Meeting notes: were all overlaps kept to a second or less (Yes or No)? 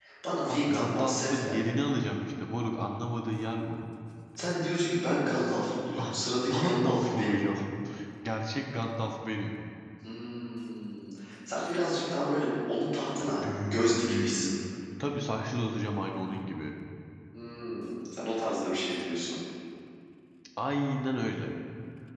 No